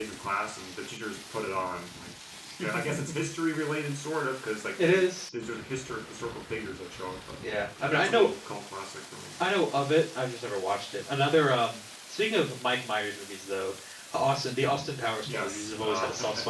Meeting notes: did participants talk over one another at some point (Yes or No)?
Yes